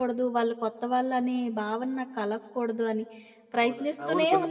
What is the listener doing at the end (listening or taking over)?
taking over